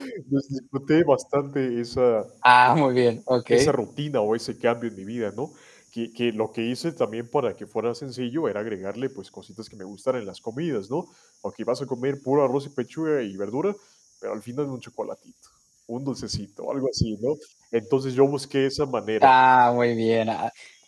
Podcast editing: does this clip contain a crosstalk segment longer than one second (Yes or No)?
No